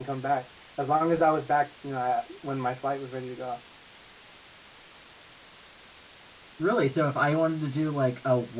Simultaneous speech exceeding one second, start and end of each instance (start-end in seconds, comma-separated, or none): none